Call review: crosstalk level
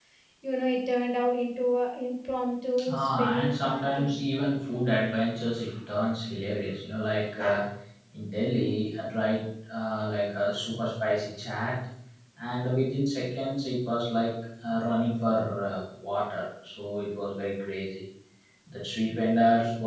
present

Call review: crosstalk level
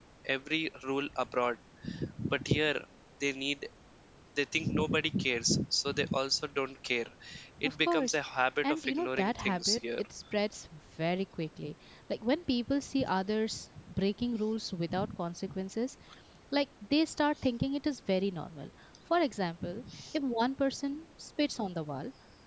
present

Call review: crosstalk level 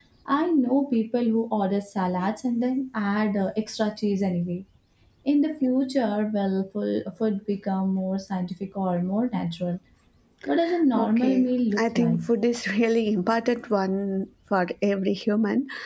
present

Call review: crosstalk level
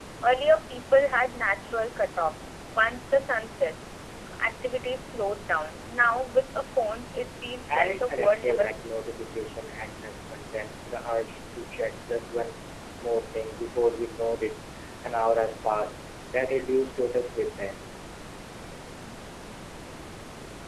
present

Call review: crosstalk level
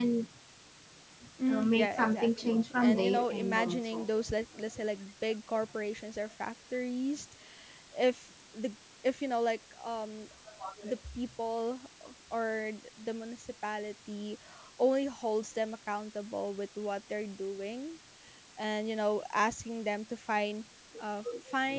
present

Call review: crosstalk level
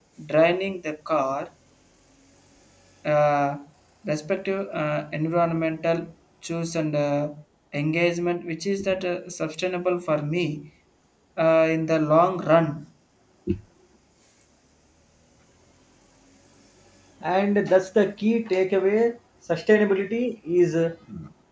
none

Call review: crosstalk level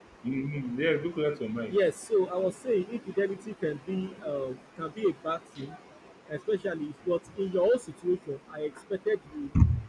none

